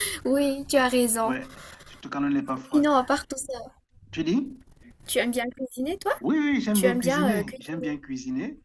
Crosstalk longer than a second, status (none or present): present